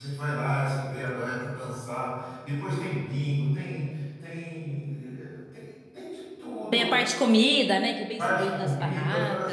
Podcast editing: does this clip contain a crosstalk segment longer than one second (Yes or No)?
Yes